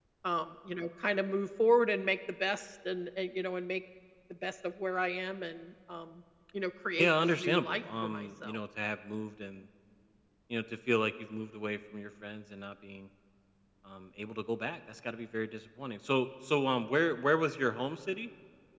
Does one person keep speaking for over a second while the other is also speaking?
Yes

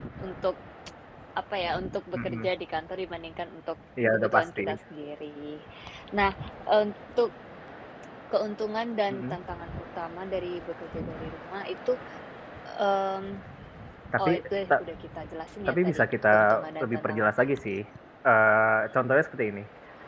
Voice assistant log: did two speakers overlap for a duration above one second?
Yes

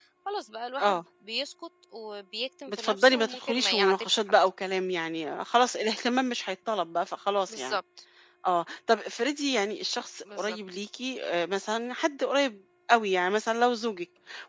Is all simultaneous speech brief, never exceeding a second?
No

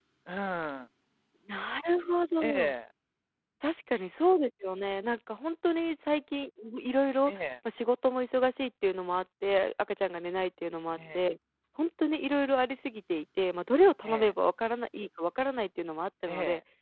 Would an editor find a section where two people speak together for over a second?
No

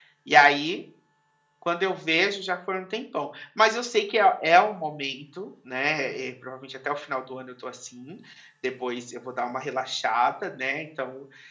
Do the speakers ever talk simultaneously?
No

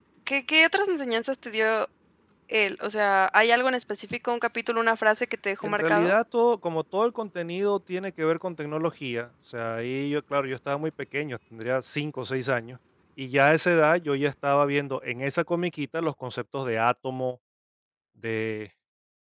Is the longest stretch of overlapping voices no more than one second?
Yes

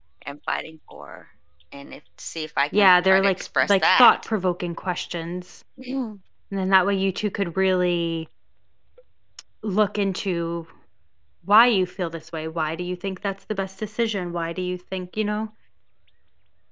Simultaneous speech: Yes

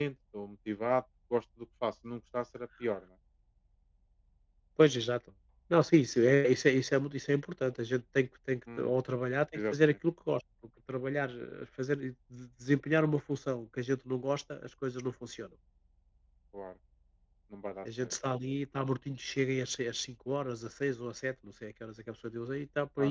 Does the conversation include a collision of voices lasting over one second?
No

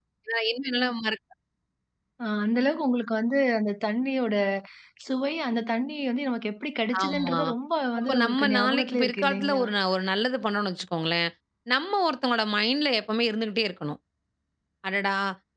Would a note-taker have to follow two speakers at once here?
Yes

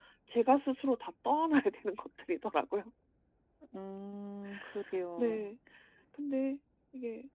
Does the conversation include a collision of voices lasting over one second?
No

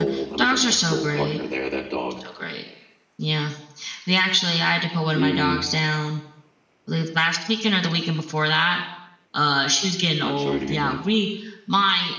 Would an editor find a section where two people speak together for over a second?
Yes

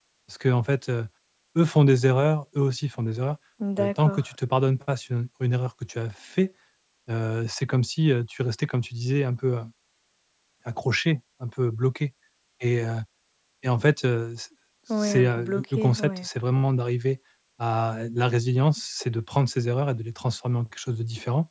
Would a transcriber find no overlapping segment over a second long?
No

